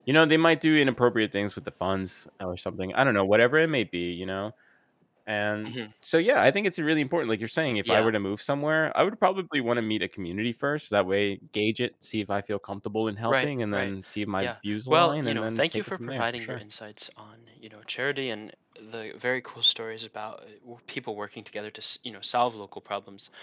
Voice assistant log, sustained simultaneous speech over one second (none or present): present